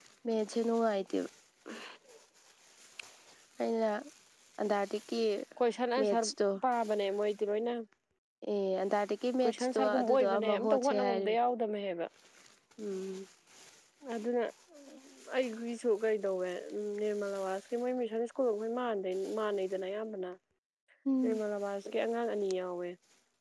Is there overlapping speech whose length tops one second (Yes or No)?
Yes